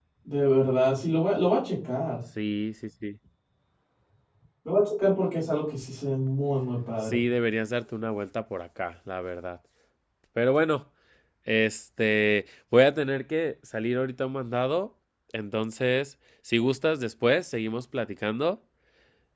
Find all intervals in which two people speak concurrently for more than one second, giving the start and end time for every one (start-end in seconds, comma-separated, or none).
none